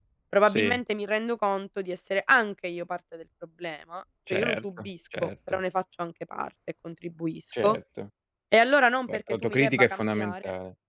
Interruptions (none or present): present